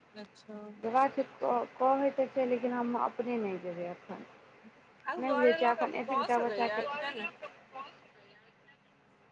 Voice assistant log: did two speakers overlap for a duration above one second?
Yes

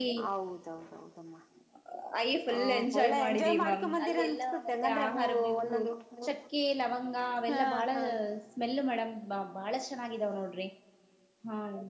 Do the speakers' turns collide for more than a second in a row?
Yes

